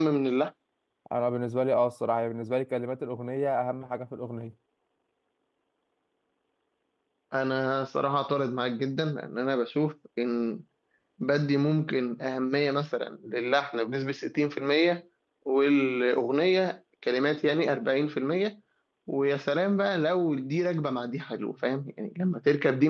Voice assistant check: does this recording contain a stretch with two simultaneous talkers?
No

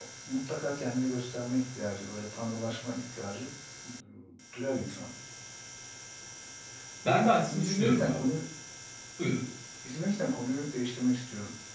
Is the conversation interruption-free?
No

